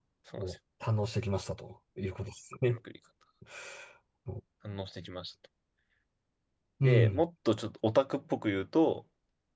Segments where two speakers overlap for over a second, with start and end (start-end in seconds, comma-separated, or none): none